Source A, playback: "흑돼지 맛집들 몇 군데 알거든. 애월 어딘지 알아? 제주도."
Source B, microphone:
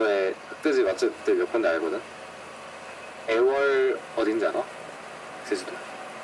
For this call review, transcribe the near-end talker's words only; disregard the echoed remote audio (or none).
none